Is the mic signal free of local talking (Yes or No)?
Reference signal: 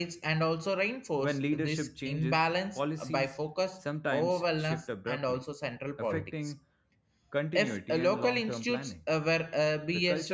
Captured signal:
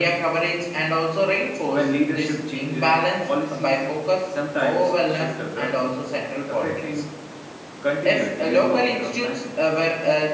Yes